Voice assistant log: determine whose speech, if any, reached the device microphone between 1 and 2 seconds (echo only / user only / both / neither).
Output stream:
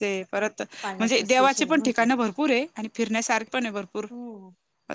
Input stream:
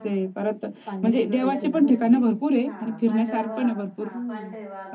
both